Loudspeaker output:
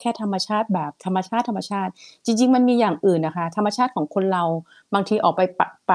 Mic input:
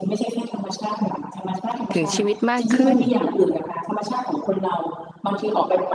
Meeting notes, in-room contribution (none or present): present